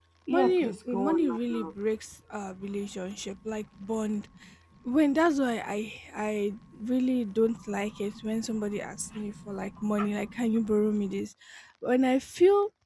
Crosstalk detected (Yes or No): Yes